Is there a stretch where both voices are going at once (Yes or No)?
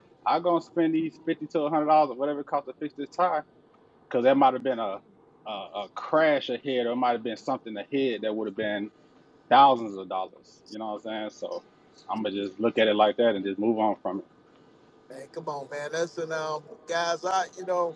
No